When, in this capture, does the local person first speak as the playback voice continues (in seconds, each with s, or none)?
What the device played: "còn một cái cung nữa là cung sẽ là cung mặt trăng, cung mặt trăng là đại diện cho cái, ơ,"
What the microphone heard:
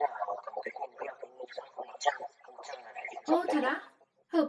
3.2 s